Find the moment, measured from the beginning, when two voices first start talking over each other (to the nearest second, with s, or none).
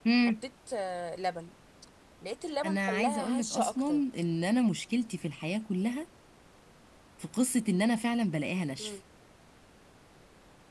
3 s